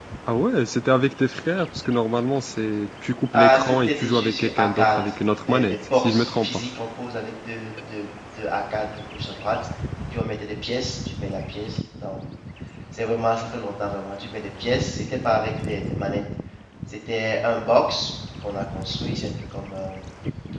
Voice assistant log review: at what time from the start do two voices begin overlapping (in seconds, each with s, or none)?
3.3 s